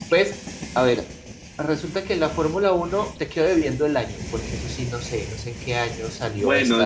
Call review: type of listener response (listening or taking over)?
taking over